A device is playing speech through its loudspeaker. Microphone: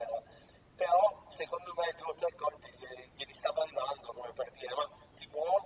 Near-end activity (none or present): none